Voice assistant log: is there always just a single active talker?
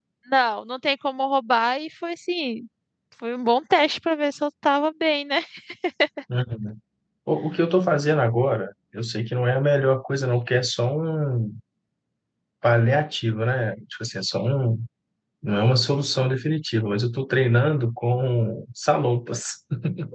Yes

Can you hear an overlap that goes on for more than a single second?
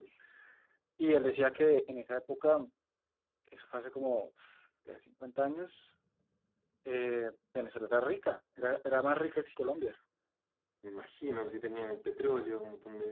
No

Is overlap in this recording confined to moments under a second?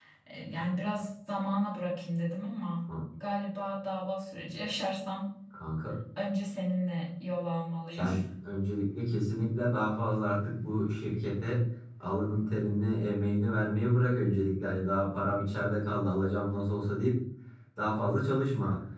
Yes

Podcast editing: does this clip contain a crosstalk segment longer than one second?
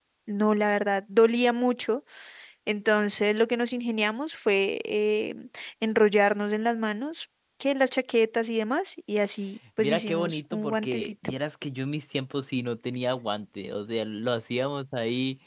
Yes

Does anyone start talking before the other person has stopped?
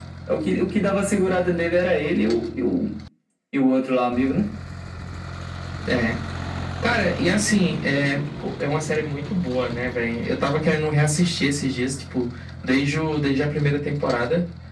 No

